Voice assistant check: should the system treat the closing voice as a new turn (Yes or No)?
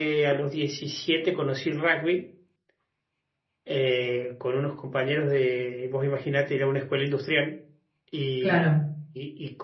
No